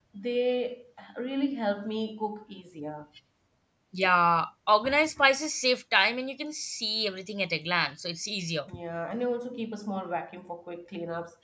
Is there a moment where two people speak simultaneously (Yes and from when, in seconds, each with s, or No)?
No